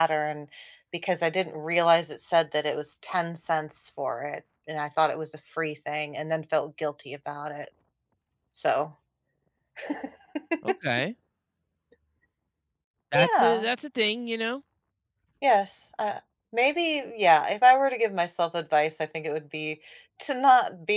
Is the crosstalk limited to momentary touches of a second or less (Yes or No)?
Yes